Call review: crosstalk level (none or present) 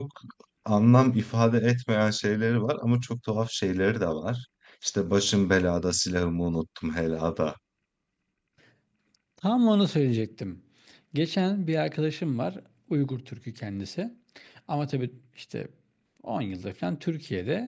none